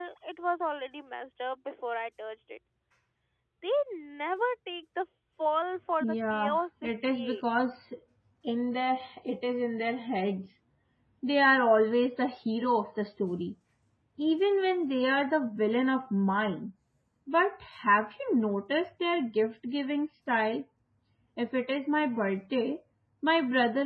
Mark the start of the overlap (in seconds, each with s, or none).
6.0 s